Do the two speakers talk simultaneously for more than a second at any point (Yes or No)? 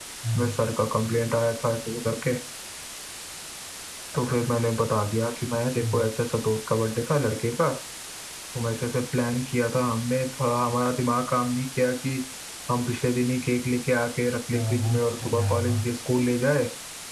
Yes